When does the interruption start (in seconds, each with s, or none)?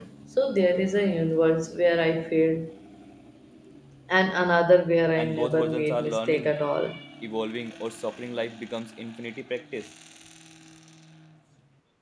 5.2 s